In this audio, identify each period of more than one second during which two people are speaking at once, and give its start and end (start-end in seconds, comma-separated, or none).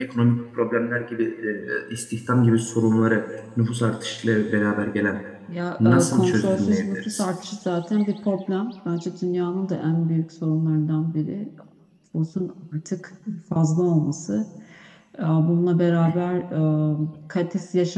5.8-7.2